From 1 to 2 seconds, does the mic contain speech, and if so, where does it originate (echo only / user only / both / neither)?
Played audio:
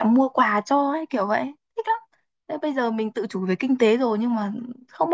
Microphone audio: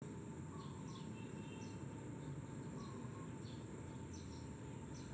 neither